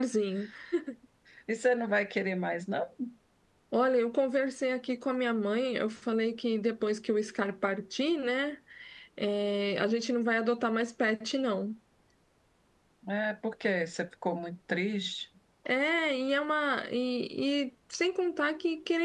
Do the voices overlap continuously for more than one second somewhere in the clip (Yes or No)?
No